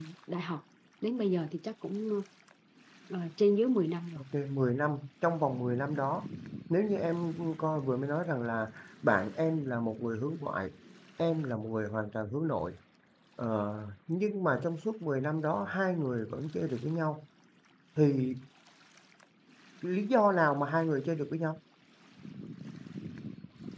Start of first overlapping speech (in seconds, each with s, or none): none